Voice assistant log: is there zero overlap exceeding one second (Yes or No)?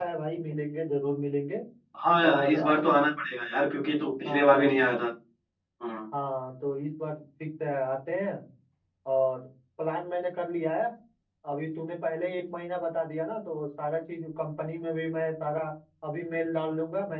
Yes